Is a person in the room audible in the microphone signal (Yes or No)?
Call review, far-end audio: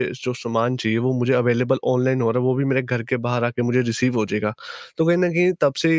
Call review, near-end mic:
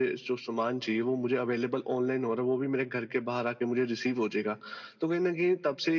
No